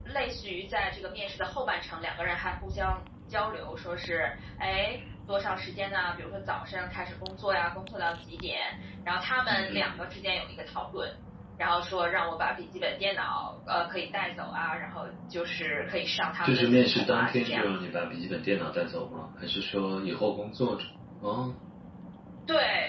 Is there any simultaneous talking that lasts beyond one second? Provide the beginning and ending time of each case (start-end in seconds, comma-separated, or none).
16.4-17.7